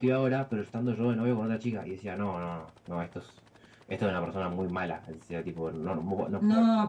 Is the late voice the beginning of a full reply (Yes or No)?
Yes